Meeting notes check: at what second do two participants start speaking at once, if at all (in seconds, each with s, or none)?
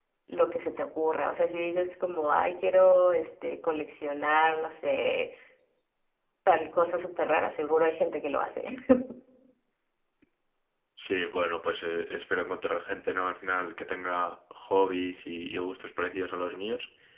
none